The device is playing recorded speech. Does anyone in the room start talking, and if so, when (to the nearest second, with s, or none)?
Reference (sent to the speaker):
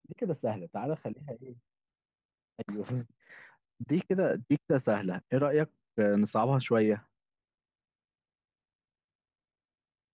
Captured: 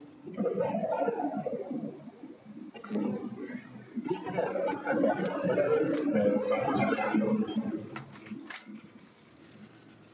none